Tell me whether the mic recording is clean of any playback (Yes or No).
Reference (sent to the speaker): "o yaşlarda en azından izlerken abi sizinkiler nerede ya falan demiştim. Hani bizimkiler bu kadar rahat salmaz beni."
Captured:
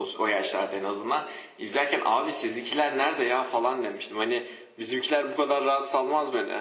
No